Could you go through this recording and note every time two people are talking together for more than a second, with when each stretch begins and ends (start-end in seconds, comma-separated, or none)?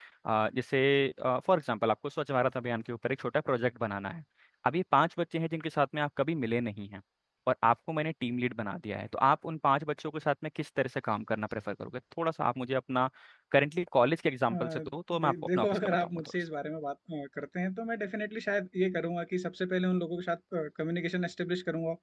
14.5-16.3